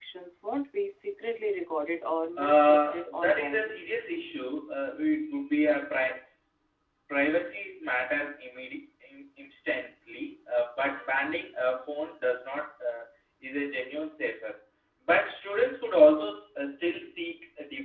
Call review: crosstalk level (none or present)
present